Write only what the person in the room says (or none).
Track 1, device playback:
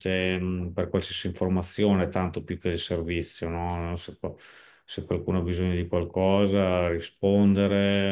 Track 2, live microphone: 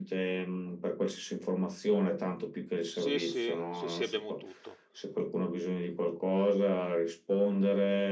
Sì, sì, sì, sì, abbiamo tutto.